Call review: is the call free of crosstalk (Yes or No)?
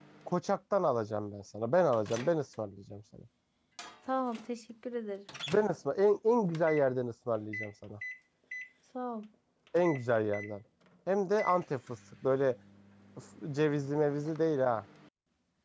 Yes